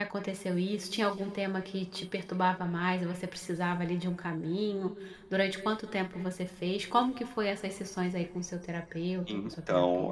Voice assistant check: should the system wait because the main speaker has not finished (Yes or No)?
No